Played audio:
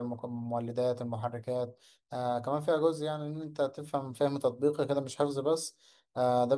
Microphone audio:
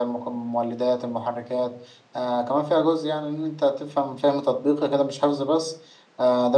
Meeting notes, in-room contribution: none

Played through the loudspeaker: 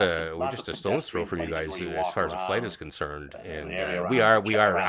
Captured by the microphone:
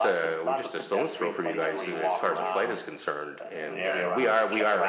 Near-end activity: present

